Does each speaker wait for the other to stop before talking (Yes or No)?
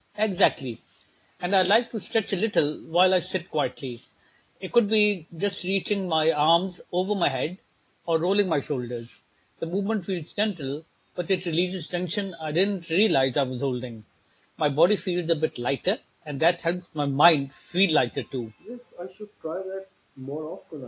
Yes